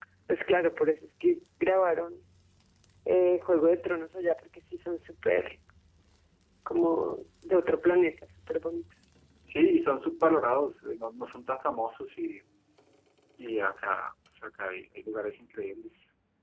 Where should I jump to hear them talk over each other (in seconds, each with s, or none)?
none